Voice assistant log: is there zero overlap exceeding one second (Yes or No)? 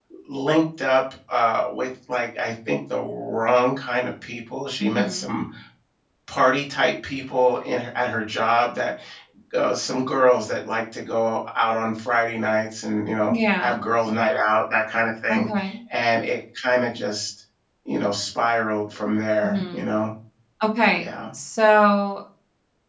Yes